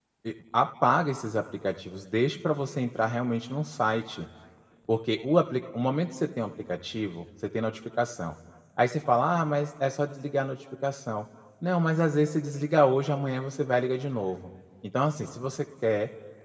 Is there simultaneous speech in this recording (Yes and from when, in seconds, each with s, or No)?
No